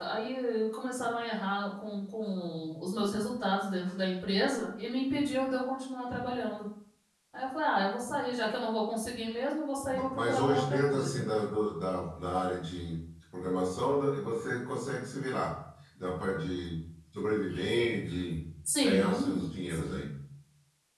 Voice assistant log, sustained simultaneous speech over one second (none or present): present